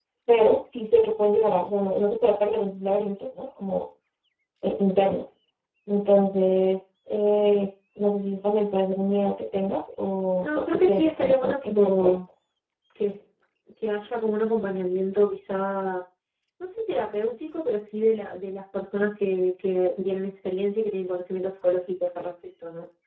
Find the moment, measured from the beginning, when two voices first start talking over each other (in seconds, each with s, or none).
10.4 s